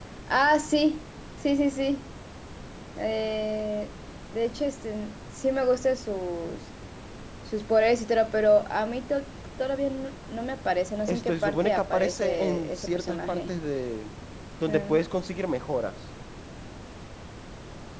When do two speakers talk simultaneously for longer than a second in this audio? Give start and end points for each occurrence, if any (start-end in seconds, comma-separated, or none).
11.1-13.5